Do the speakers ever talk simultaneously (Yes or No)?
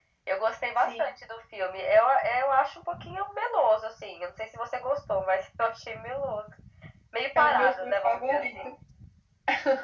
Yes